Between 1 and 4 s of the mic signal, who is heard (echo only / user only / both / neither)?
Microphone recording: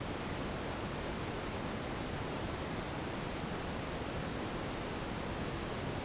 neither